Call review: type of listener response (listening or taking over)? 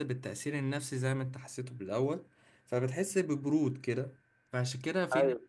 listening